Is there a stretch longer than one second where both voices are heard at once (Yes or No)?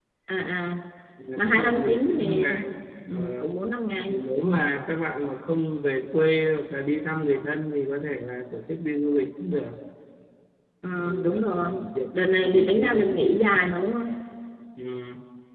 Yes